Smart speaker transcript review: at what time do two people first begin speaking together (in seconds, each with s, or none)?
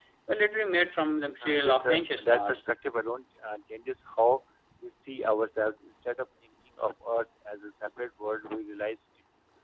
1.4 s